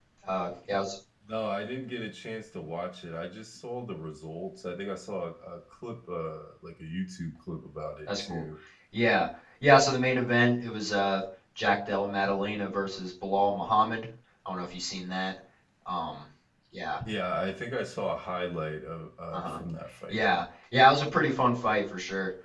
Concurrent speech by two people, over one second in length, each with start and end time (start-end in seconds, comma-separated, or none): none